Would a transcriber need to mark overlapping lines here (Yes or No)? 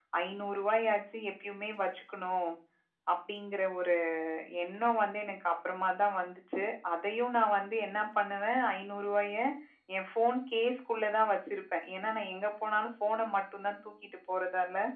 No